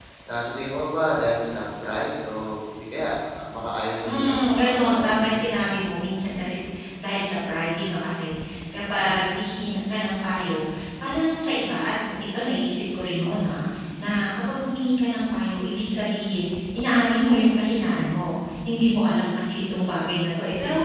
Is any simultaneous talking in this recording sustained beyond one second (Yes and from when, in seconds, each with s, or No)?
Yes, from 4.0 s